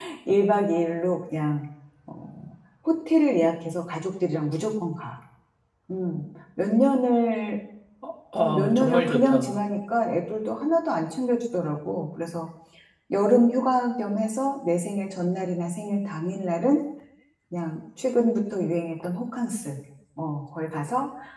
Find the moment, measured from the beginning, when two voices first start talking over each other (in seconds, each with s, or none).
8.3 s